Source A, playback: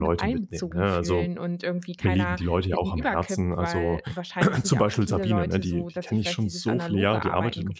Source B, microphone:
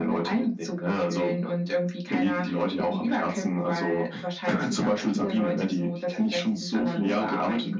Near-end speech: none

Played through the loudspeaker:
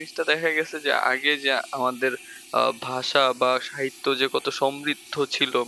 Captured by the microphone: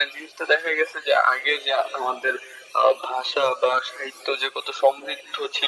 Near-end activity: none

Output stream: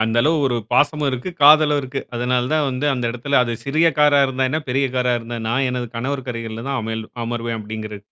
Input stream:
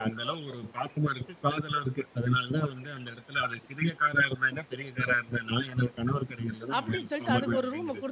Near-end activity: present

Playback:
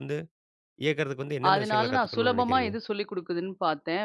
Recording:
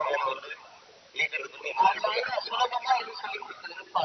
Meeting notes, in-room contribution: none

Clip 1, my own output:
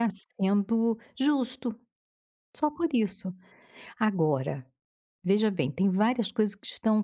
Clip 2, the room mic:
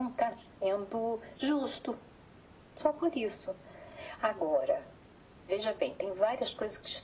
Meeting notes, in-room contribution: none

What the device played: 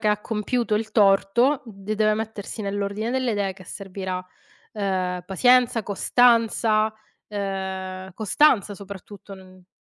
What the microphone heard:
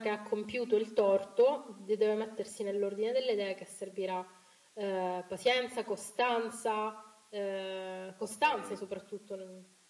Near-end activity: present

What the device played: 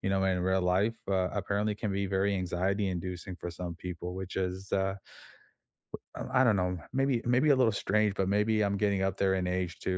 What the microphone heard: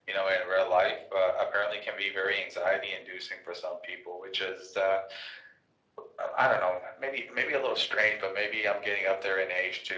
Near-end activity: none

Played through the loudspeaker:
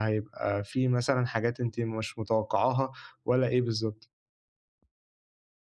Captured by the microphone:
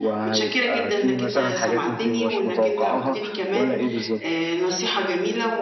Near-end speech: present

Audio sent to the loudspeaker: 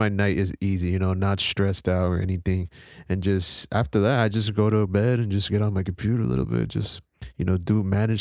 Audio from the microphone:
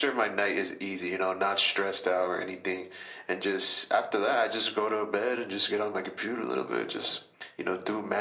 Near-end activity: none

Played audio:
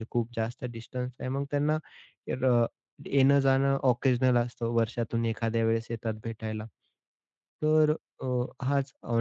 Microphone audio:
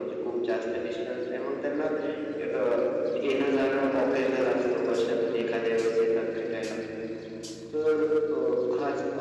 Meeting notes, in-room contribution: none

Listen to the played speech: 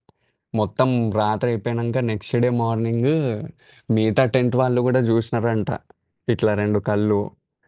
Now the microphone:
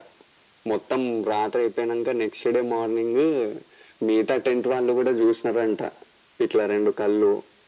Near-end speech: none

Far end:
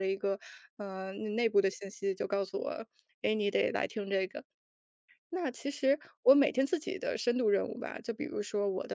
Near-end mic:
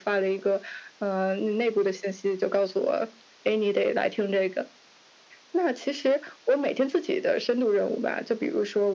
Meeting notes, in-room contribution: none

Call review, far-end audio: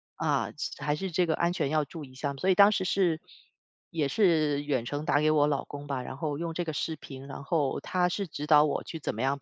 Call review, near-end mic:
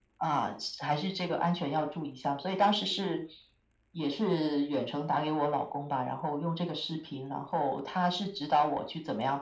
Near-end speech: none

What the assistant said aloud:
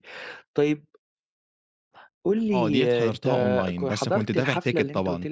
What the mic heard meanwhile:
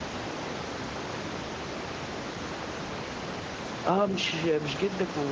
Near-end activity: present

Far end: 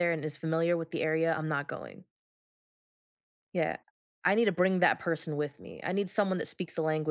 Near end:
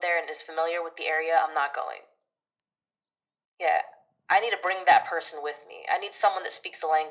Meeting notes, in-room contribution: none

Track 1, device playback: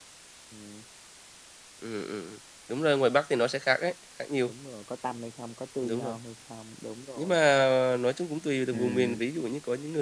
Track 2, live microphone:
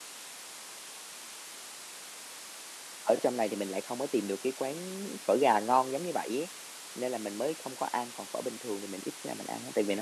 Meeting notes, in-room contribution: present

